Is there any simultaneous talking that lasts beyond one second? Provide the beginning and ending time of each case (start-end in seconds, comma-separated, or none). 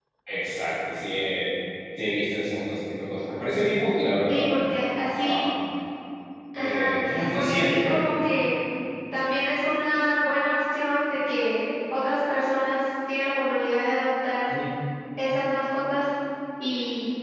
6.5-8.0